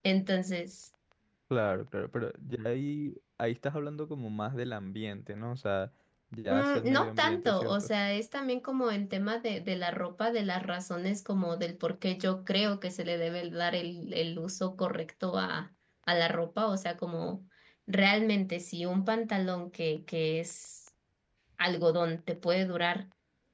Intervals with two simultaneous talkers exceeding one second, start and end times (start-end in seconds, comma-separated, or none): 6.5-7.9